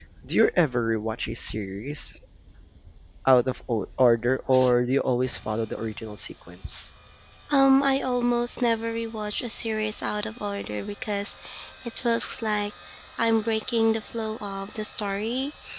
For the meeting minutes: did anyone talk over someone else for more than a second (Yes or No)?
No